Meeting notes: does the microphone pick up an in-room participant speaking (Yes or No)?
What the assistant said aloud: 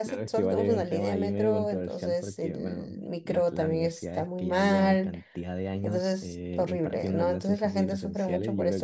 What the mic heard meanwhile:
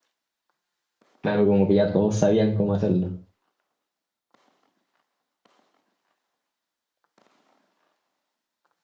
Yes